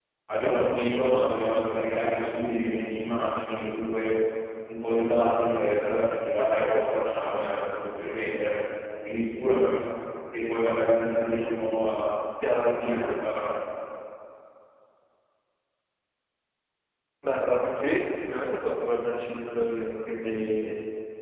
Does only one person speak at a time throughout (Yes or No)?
Yes